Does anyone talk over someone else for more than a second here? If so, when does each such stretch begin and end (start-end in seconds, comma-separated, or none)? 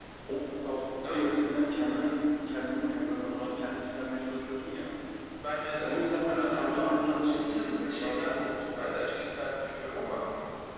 6.3-8.4